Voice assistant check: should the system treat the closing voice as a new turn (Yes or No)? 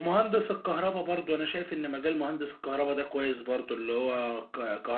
No